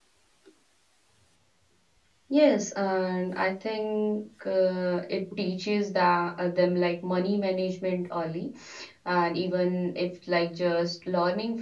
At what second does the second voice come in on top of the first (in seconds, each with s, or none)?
none